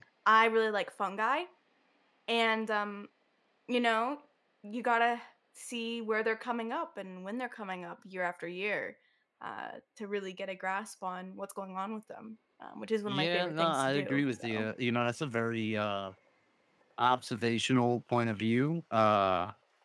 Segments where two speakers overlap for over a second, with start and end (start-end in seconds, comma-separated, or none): 13.1-14.7